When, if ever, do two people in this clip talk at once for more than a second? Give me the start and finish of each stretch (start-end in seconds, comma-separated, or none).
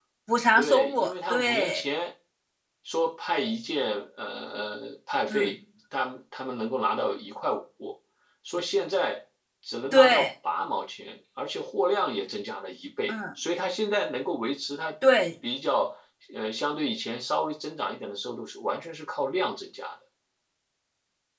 0.6-1.8